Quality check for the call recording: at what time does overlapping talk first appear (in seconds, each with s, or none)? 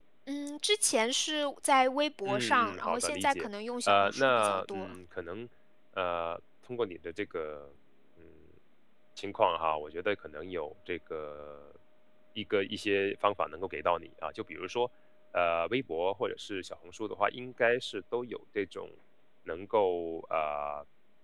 2.2 s